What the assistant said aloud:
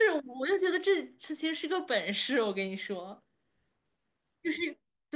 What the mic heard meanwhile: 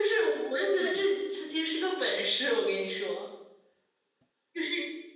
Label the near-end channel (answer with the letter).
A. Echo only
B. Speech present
B